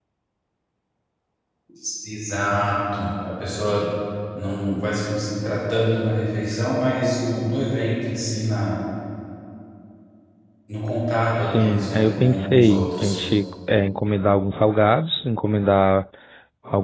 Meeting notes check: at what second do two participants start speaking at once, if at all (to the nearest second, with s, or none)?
11 s